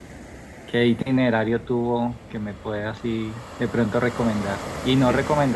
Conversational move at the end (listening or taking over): listening